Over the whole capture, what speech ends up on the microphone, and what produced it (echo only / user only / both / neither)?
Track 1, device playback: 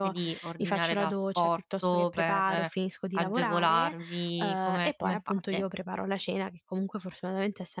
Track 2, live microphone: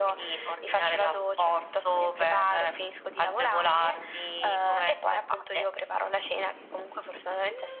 echo only